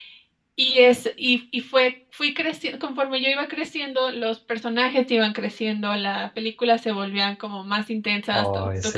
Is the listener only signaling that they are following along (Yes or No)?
Yes